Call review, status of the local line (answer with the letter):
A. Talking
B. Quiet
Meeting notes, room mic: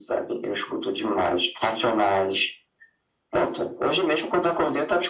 B